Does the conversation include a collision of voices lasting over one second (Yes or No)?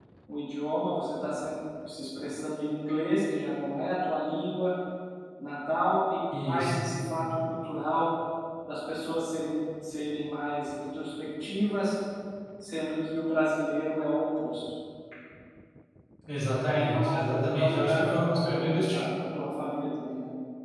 Yes